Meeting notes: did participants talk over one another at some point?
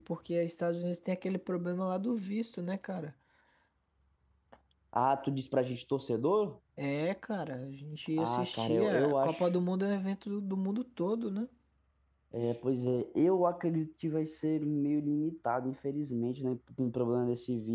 Yes, from 8.2 s

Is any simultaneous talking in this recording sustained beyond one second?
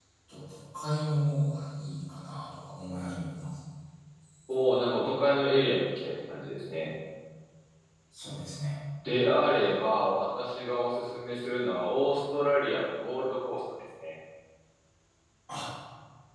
No

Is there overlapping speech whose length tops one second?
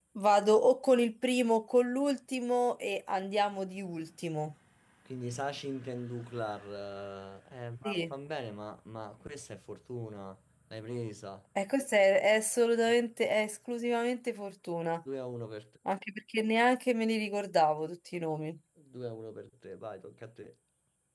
No

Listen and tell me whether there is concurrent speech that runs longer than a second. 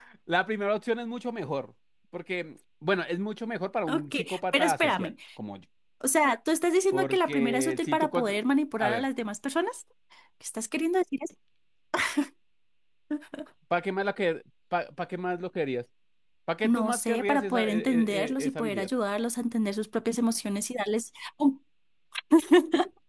Yes, from 3.9 s

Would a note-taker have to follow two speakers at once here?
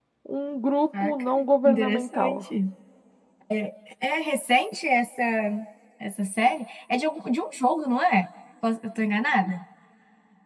Yes, from 1.0 s

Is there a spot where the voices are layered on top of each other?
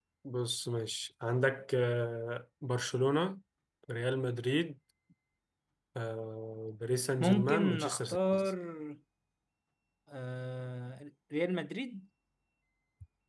Yes, from 7.2 s

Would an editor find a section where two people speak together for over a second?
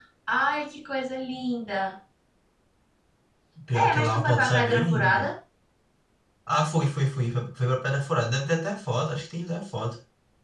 Yes, from 3.7 s

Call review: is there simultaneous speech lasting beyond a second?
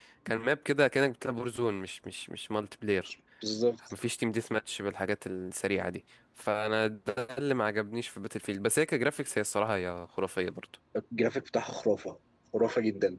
No

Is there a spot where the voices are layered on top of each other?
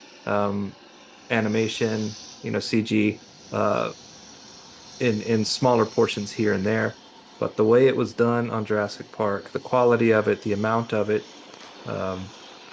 No

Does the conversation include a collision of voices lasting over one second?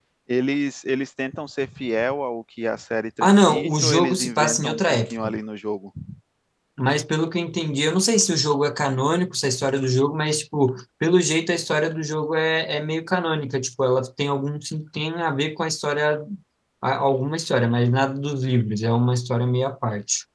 Yes, from 3.2 s

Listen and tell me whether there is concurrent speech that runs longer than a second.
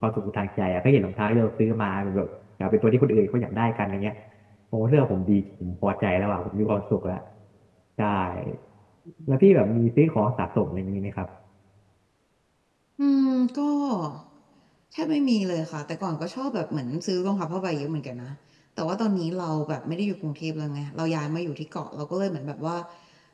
No

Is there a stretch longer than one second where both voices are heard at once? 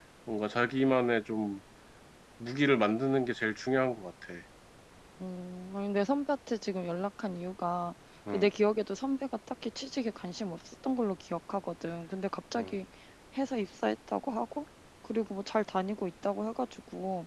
No

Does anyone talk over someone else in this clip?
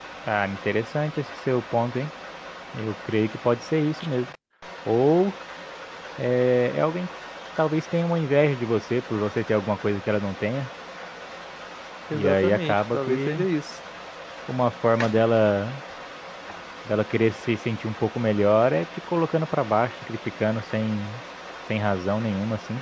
Yes, from 12.1 s

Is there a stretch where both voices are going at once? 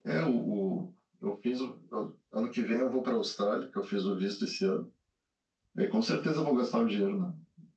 No

